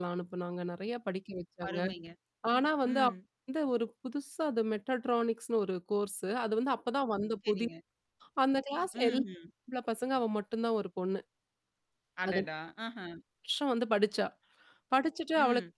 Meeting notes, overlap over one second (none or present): none